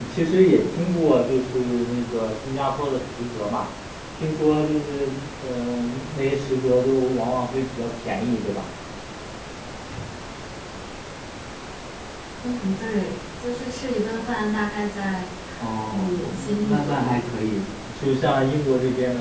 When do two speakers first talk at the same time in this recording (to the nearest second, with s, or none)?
16 s